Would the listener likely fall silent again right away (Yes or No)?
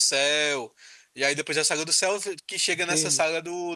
No